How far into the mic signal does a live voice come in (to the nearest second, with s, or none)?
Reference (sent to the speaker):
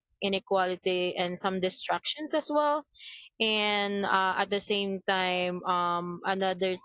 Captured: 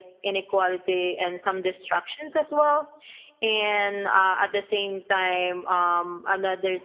none